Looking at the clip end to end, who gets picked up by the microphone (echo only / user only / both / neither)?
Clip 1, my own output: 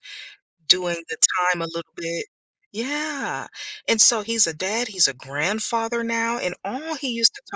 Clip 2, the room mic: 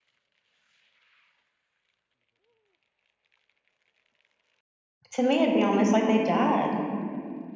user only